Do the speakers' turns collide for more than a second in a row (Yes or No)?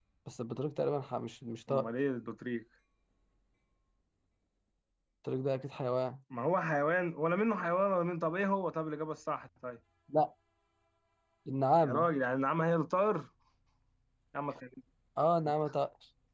No